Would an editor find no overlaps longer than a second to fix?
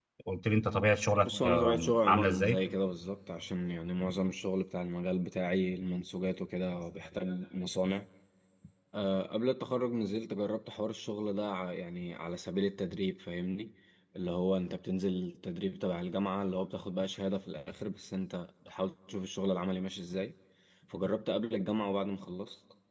No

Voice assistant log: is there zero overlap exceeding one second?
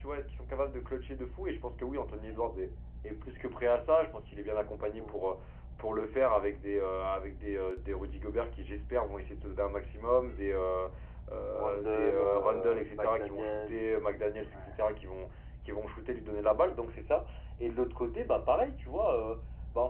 No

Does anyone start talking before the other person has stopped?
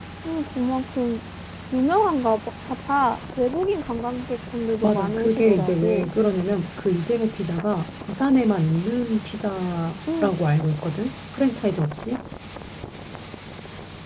Yes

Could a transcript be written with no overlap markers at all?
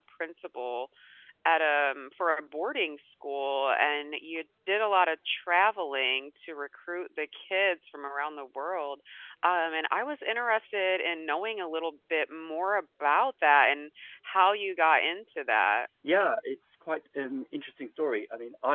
Yes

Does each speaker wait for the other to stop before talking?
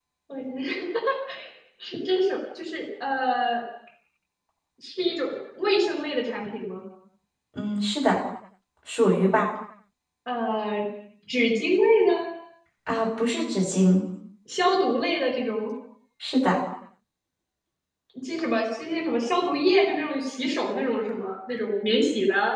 Yes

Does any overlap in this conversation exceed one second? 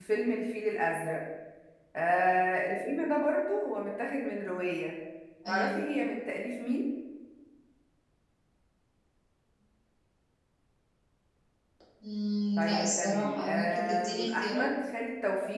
Yes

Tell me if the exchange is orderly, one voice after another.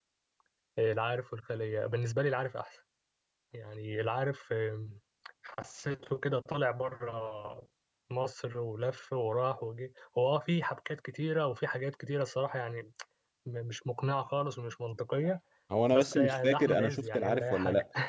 No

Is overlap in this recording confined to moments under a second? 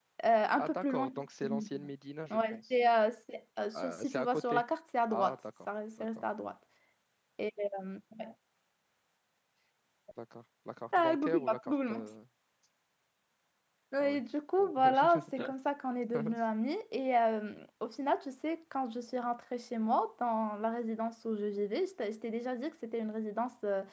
No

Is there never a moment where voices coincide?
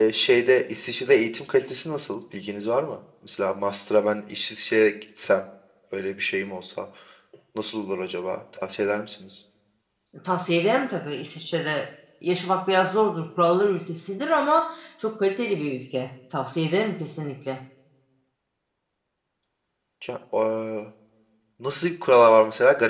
Yes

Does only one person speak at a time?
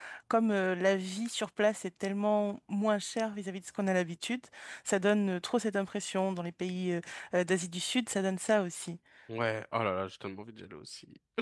Yes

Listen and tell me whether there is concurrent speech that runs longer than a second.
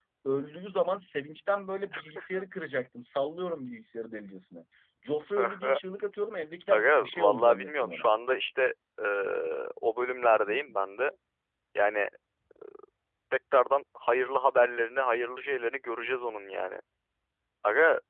Yes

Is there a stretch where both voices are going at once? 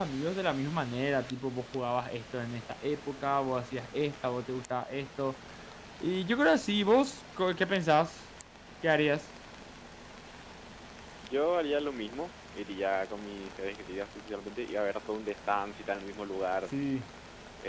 No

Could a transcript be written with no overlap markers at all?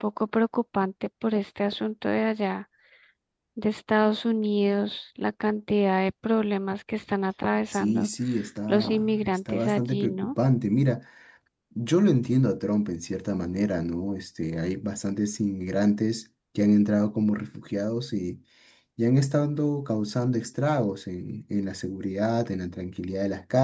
No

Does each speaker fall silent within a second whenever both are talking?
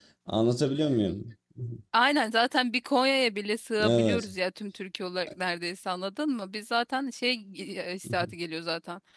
Yes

